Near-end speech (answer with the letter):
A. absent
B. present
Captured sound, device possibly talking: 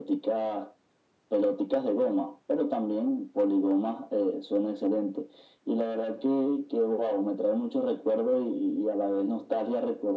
A